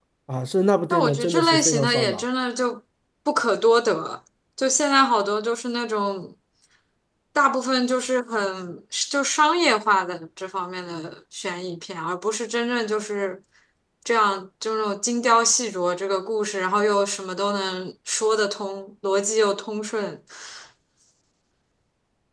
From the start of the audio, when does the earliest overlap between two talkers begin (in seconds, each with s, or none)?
0.9 s